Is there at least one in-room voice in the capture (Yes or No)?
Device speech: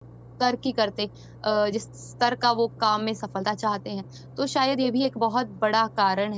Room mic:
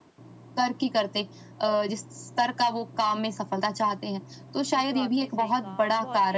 Yes